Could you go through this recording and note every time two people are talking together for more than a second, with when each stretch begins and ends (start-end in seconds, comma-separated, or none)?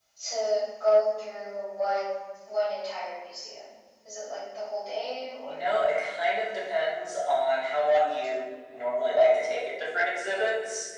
none